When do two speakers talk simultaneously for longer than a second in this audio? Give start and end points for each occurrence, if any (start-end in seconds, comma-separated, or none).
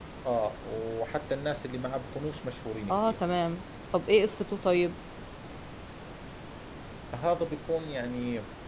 none